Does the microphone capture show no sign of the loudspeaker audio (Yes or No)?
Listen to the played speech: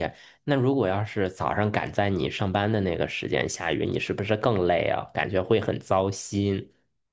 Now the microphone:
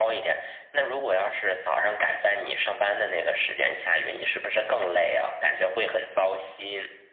No